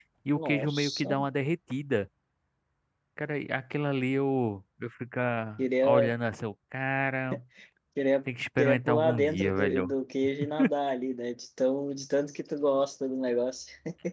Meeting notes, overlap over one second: present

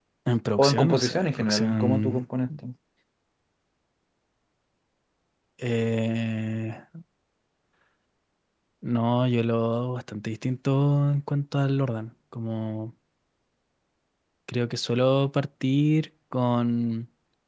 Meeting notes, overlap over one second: present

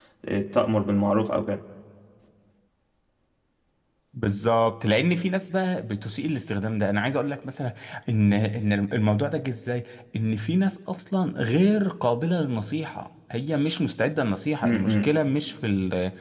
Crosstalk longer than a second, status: none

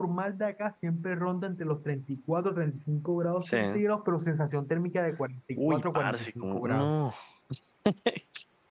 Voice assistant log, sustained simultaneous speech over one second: present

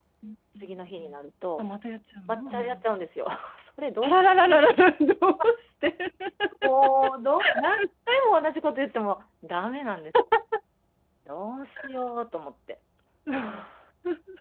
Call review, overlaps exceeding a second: none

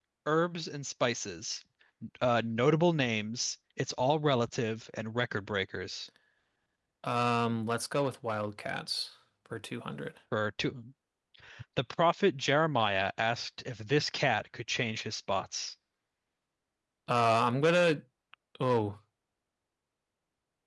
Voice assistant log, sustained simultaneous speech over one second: none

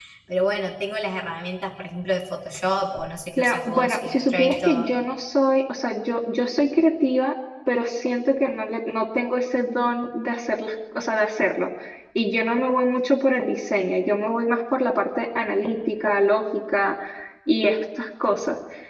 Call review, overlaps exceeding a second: present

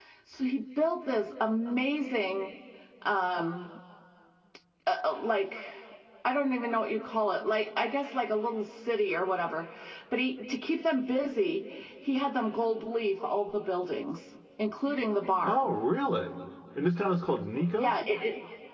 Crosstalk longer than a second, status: none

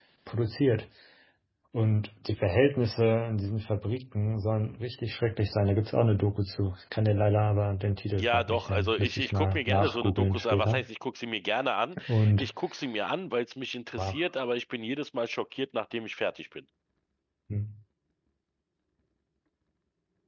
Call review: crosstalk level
present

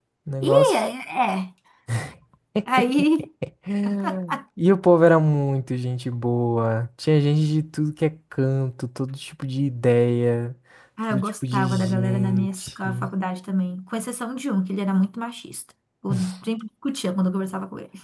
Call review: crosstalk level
present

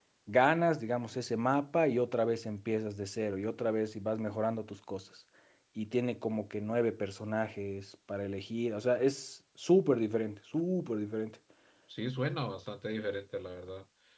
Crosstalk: none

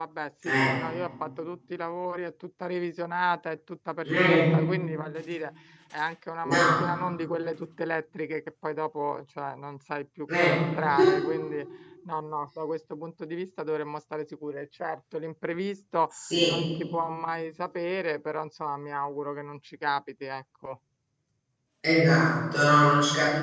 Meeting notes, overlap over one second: none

